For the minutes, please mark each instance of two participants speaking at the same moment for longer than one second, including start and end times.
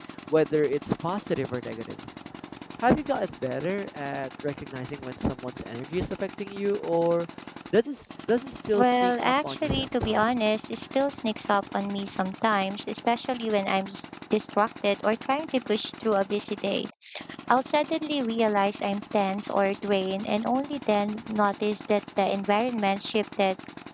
8.8-10.4

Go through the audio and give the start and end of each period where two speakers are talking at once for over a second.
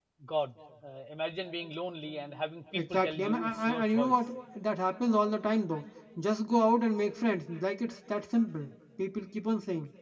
2.8-4.2

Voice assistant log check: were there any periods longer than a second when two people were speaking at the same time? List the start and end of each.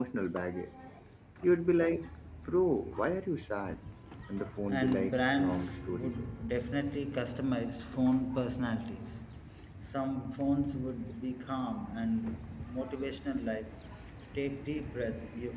4.7-6.1

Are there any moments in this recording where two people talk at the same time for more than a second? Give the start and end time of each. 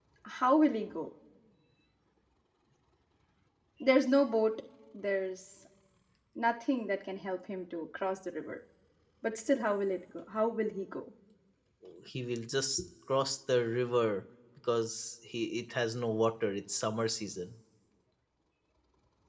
none

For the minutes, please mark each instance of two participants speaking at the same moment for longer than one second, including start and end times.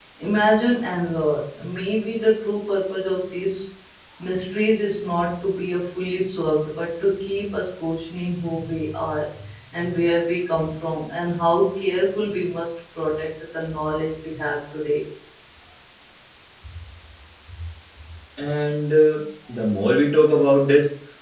none

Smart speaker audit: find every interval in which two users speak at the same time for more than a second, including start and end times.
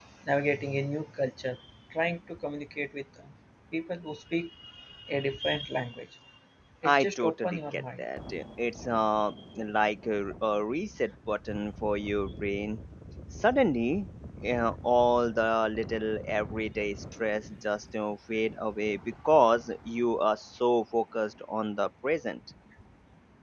6.8-8.1

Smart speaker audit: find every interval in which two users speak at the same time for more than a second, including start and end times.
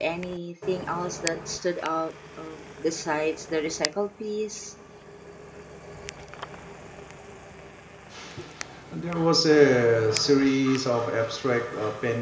none

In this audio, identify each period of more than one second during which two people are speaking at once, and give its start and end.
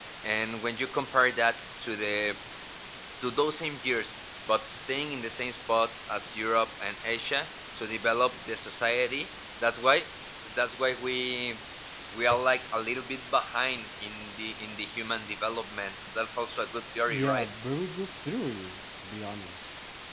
none

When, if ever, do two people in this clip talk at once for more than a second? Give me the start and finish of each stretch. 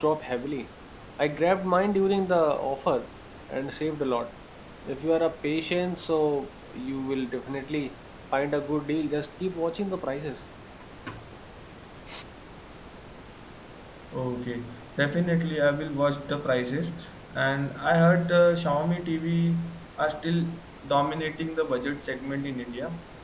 none

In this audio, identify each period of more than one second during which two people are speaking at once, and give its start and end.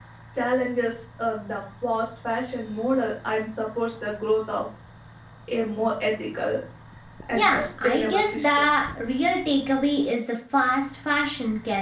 7.3-8.7

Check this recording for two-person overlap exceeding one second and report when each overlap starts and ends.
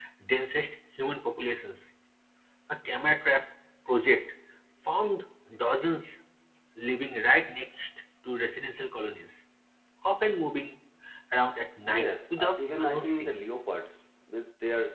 11.9-13.4

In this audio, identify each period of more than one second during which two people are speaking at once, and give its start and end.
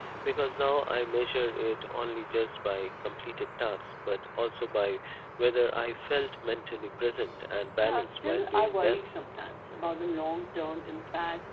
7.8-9.0

